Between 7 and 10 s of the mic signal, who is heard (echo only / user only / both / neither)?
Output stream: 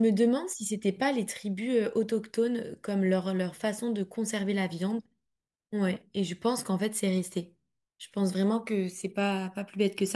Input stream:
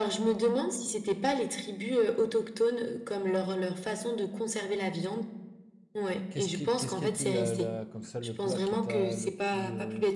both